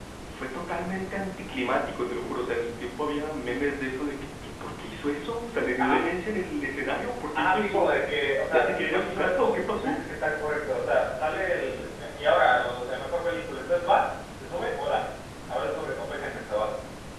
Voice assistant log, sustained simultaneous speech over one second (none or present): present